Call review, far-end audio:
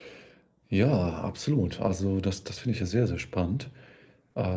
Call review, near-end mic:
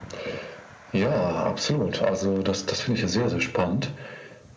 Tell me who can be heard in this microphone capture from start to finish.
echo only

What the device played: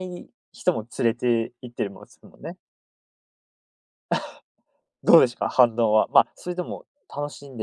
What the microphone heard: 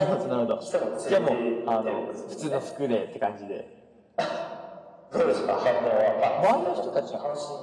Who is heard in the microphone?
both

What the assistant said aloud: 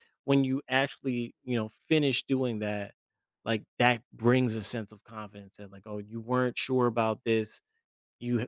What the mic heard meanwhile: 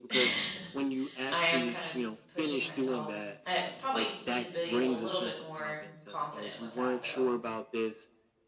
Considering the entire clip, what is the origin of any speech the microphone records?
both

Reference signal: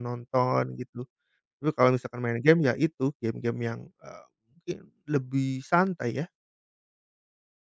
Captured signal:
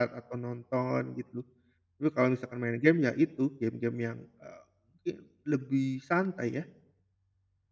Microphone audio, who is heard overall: echo only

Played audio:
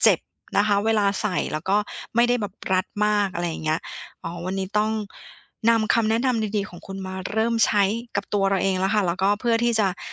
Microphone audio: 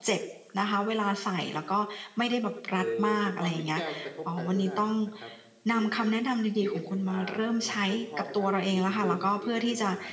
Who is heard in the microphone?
both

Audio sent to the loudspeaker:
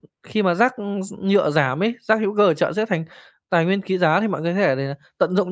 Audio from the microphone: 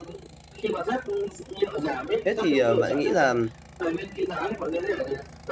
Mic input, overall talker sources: both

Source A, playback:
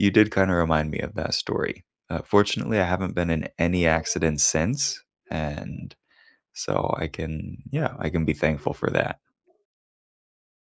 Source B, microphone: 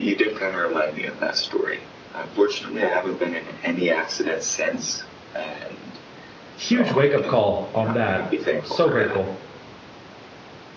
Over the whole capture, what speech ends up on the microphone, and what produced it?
both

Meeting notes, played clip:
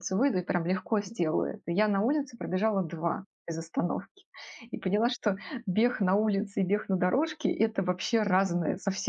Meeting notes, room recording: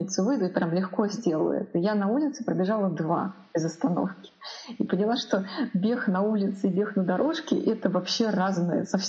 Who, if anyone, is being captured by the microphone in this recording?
echo only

